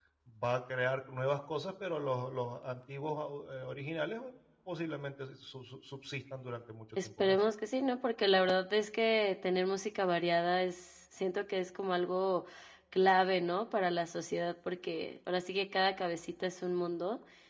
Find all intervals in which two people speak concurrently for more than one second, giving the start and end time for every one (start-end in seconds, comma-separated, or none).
none